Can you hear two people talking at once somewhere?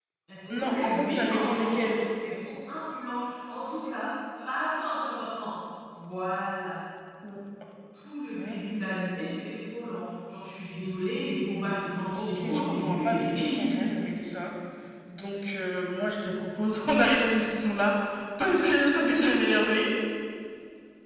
Yes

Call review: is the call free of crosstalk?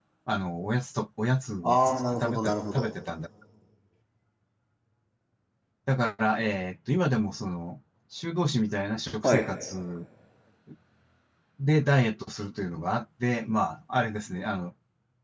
No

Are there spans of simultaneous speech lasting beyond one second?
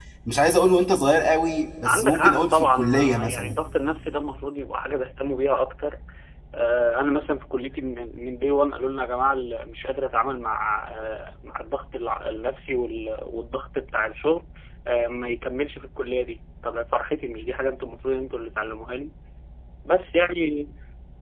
Yes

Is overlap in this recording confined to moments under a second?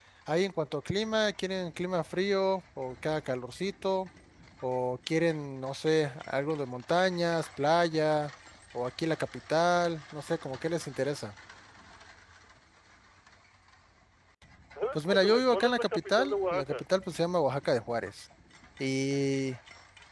No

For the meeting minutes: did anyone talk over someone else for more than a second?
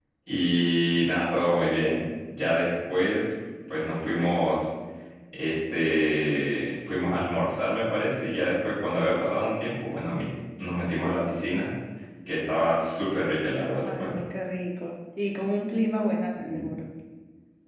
No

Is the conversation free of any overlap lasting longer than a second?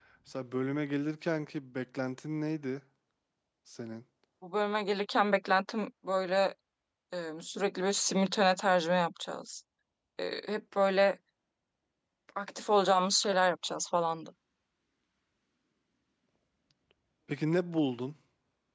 Yes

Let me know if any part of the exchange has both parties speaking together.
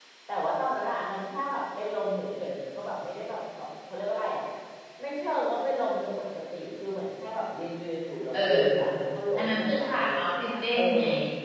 Yes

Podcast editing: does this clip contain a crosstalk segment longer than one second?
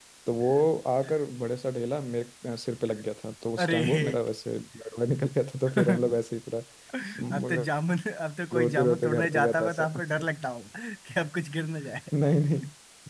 Yes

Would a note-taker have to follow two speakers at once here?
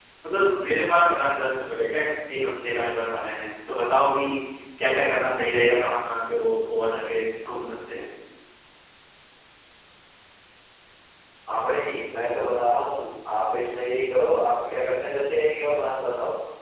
No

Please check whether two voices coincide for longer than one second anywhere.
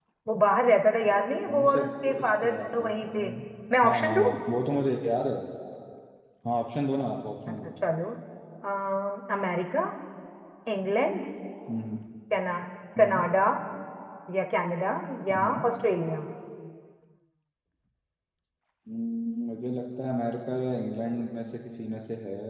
Yes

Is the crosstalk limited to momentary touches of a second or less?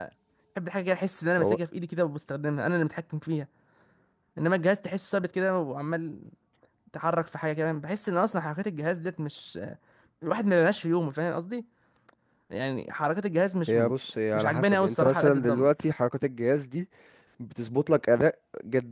No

